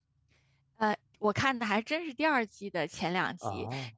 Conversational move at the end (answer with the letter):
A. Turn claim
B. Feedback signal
B